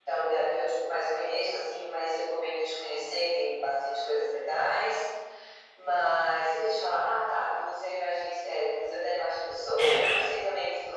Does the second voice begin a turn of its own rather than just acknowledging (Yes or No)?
No